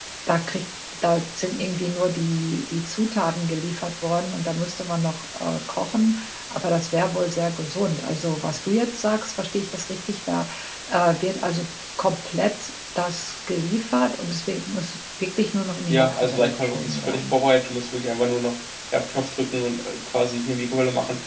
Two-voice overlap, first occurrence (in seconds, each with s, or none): 15.9 s